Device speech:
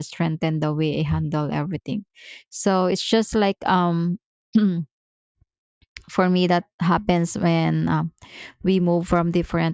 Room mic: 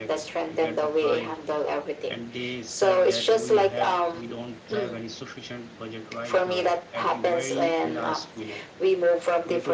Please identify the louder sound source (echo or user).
echo